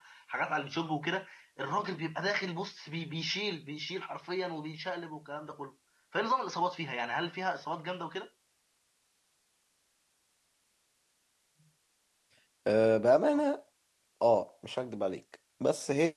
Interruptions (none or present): none